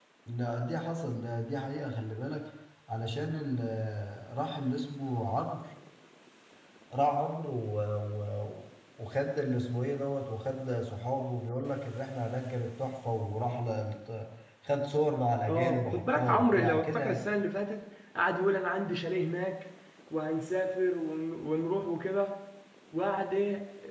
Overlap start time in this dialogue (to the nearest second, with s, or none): 15 s